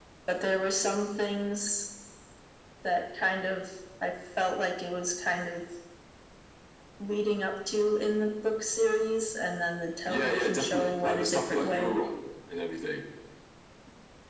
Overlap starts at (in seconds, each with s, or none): 10.1 s